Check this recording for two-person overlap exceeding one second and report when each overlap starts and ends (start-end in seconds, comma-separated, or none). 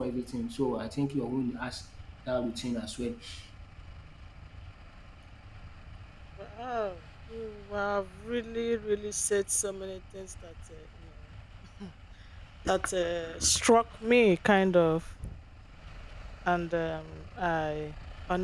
none